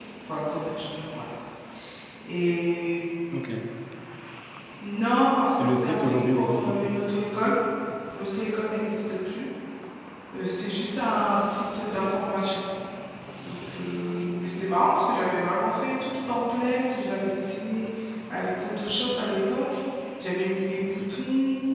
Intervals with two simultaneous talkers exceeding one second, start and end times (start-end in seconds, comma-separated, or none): 5.6-6.9